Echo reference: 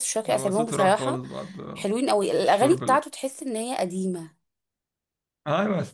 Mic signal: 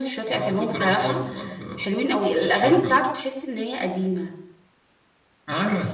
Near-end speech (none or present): none